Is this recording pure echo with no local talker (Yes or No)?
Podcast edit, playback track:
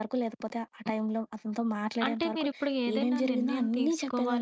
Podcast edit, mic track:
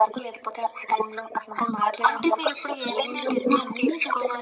Yes